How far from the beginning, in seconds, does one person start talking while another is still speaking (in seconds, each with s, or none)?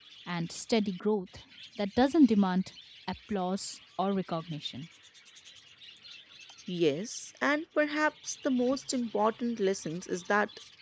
none